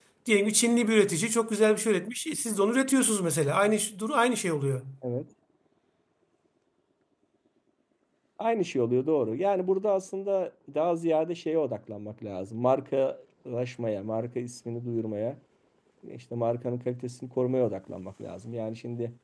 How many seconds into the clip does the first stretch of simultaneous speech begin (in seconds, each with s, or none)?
none